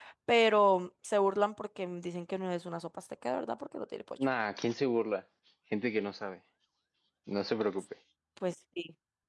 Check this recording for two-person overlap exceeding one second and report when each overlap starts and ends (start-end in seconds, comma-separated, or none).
none